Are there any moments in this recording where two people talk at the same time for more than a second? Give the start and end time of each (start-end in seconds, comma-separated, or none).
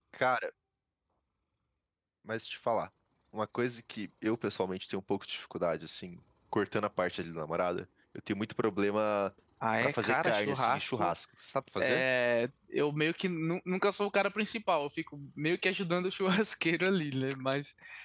9.8-11.1